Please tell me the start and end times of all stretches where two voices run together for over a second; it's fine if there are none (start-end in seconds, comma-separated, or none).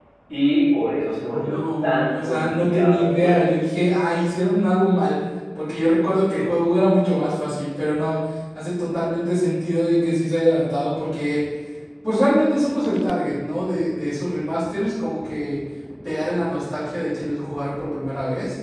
1.3-3.5